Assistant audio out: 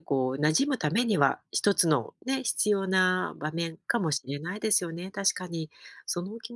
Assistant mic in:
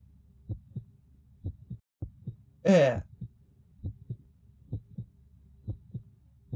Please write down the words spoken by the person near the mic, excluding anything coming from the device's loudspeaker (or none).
え